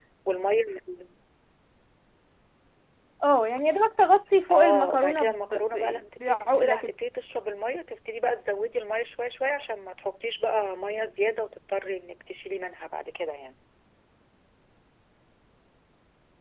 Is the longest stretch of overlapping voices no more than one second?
No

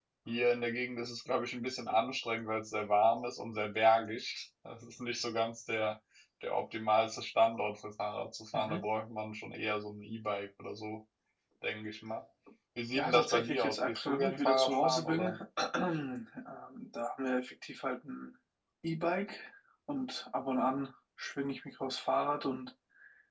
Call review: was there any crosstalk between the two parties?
Yes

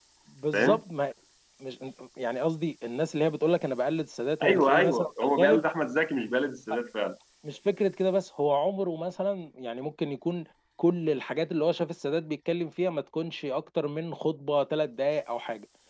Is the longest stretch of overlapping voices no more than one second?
No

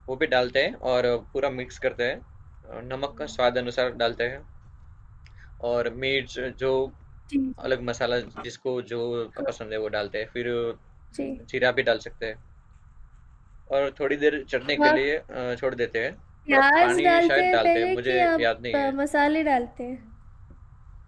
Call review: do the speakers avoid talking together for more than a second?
No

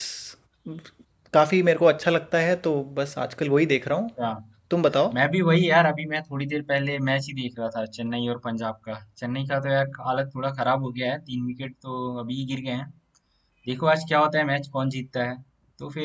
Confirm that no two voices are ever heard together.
Yes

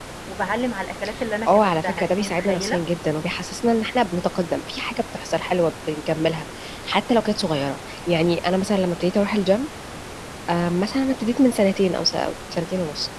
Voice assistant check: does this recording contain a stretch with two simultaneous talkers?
Yes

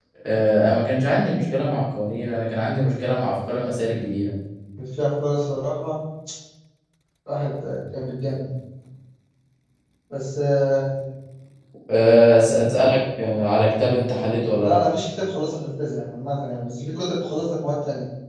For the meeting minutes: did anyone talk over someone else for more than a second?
No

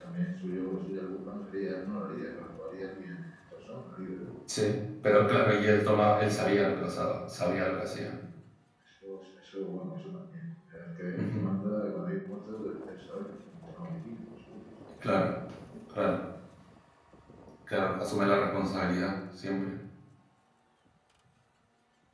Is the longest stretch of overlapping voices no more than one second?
Yes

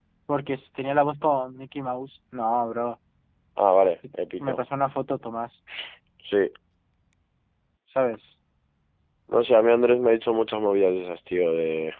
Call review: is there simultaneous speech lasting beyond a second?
No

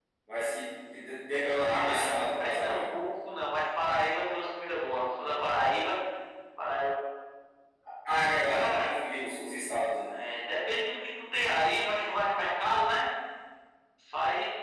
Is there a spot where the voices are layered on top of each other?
Yes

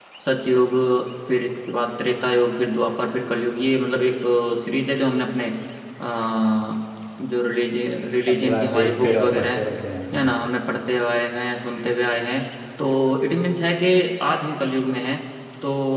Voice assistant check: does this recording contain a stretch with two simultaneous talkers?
Yes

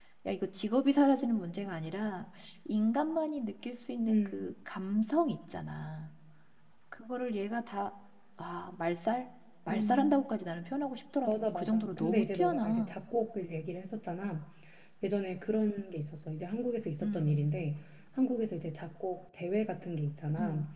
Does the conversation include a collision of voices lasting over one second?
Yes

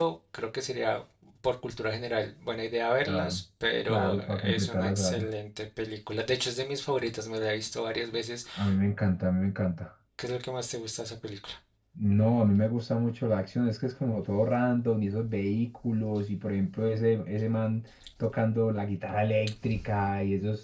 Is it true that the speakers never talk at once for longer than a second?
No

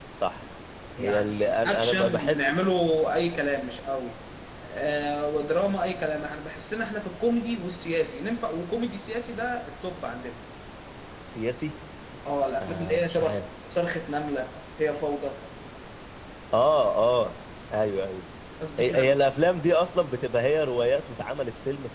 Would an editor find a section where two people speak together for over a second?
Yes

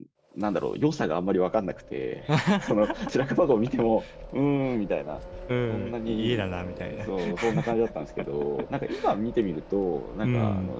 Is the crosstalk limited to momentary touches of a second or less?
No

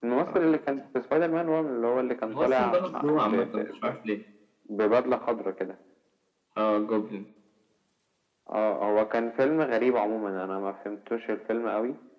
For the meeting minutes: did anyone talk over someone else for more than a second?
Yes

